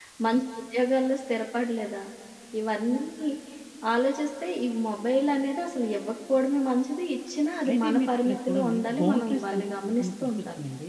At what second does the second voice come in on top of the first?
7.6 s

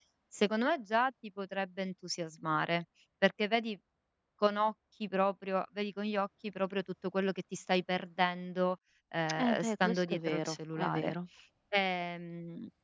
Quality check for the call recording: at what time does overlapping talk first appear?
9.3 s

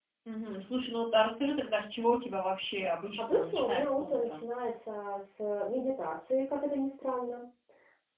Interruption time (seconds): 3.2 s

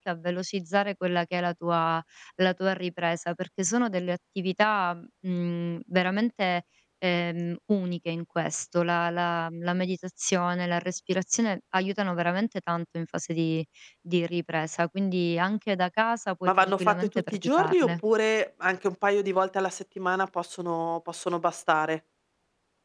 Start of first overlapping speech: 16.4 s

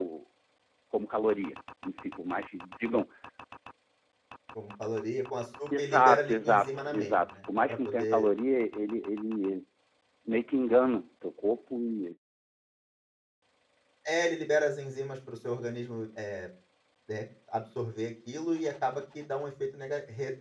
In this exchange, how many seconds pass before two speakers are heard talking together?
5.7 s

